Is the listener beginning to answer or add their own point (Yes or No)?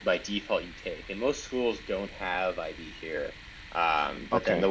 No